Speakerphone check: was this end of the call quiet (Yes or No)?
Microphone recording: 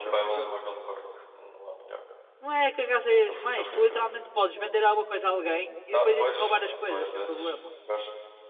No